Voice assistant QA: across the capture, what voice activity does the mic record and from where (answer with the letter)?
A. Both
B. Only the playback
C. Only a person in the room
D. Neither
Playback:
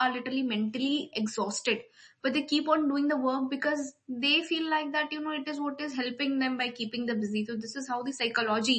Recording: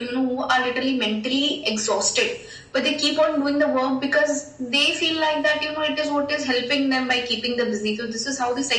B